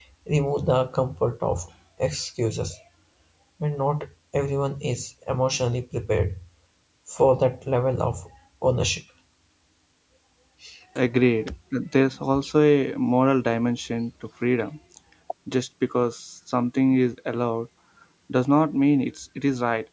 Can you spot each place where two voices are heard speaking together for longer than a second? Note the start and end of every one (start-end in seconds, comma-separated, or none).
none